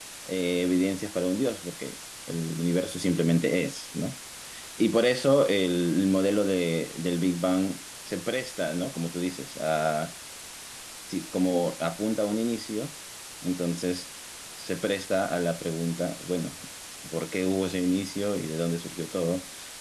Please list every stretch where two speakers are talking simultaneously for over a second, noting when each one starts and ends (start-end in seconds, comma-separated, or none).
none